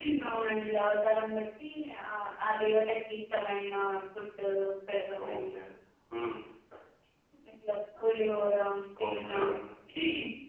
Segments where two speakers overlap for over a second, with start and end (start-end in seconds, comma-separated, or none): none